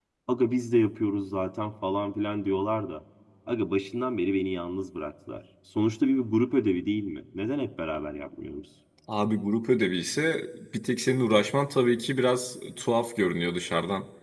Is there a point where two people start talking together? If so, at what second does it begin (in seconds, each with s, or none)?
none